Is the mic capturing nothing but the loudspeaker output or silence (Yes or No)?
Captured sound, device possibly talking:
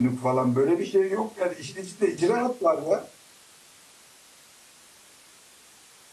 No